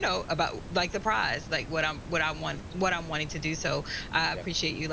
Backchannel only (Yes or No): Yes